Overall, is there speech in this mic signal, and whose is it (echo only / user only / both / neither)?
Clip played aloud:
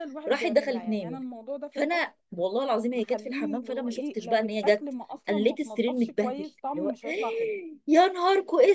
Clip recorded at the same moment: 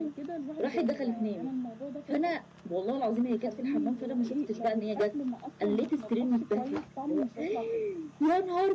echo only